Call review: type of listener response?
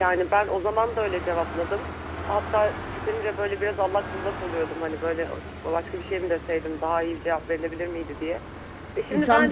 taking over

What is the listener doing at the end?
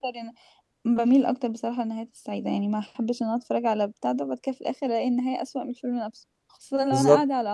listening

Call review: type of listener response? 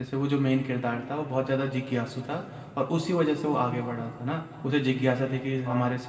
listening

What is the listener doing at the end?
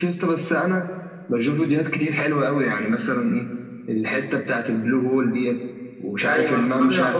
taking over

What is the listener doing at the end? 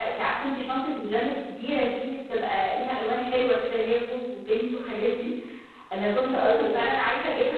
listening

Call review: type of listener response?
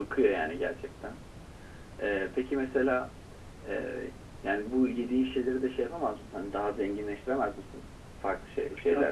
taking over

